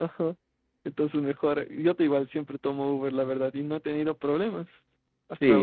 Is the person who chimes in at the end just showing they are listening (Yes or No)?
No